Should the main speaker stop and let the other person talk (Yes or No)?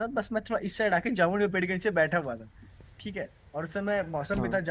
No